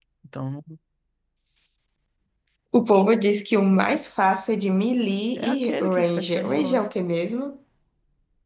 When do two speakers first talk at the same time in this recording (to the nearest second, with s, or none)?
5 s